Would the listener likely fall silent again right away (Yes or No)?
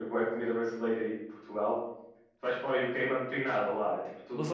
No